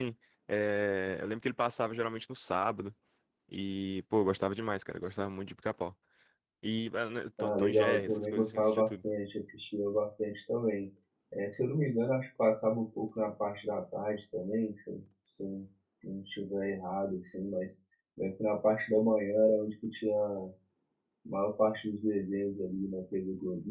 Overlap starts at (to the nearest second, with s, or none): 7 s